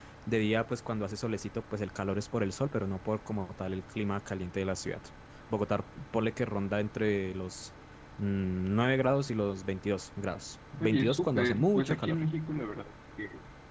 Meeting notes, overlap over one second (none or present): present